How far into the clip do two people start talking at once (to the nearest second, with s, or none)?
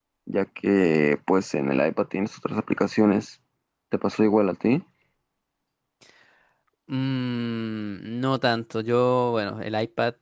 none